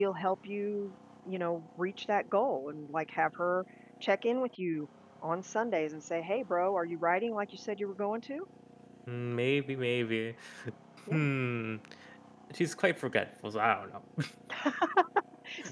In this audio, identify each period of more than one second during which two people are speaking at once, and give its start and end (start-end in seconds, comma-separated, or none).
none